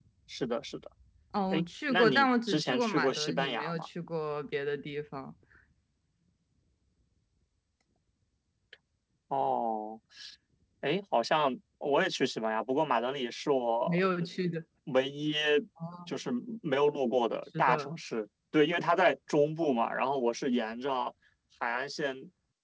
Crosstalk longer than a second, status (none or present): present